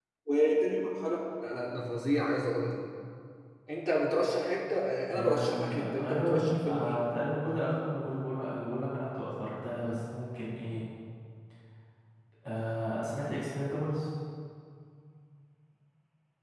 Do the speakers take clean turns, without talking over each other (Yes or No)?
No